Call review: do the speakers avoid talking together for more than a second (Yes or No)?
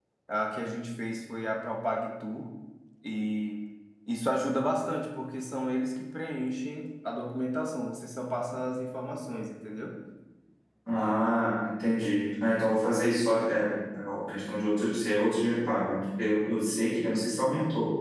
Yes